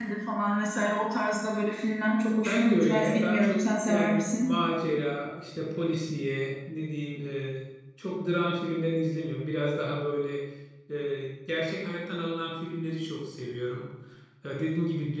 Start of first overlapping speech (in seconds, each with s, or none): 2.4 s